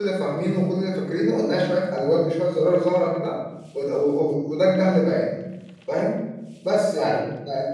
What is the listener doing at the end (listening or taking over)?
listening